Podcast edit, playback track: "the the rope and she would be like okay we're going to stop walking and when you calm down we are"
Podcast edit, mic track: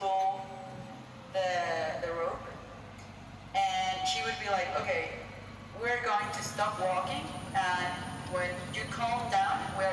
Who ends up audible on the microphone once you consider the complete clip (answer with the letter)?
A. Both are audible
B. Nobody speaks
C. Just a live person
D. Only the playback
D